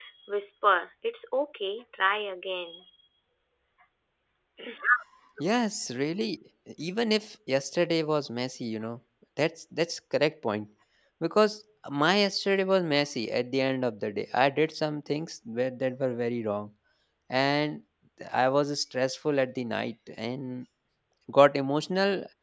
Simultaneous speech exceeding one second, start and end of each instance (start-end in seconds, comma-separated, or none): none